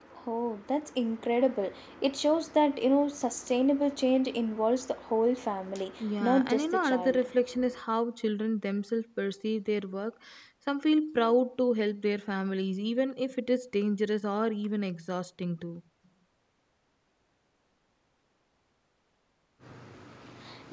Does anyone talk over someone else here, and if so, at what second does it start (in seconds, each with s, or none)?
6.0 s